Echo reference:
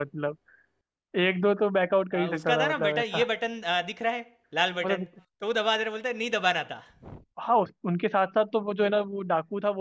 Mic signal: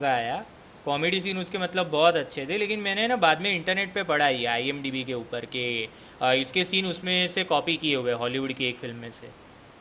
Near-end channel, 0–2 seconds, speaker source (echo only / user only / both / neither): user only